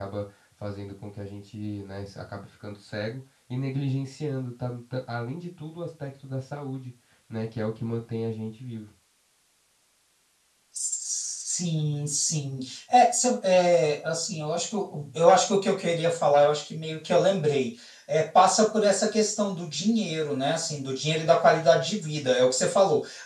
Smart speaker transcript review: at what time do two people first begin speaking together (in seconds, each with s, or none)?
none